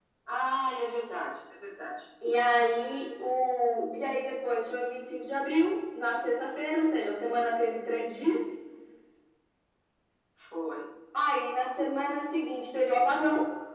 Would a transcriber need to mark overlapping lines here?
No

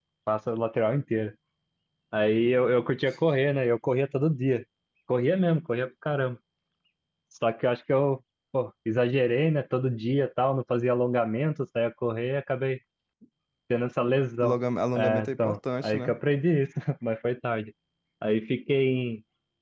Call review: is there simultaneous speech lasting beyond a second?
Yes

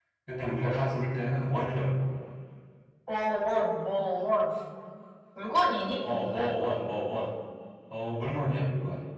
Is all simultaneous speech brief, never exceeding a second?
Yes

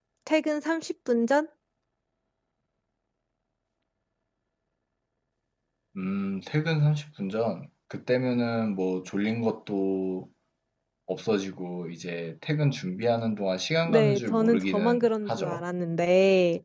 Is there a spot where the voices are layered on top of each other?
Yes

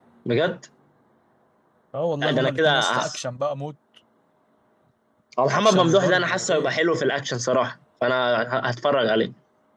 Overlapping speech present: Yes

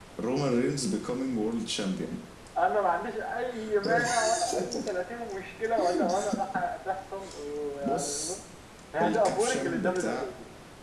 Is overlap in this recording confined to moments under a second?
No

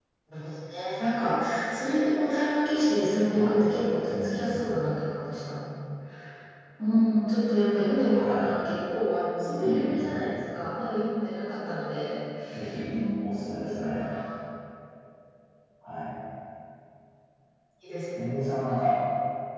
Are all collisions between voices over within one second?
No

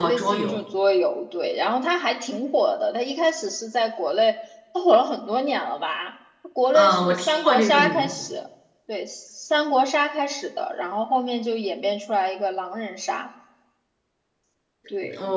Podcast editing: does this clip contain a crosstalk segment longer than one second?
Yes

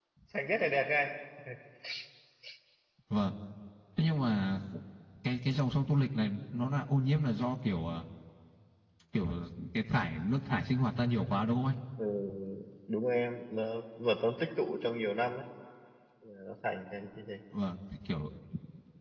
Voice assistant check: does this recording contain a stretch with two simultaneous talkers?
No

